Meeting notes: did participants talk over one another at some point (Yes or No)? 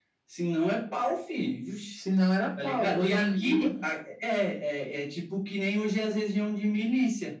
Yes